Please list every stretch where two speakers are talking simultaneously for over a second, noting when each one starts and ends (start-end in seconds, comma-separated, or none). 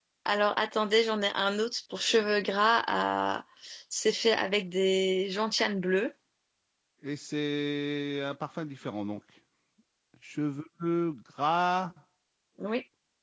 none